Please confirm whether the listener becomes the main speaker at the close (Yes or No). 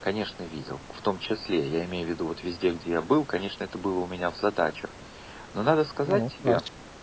No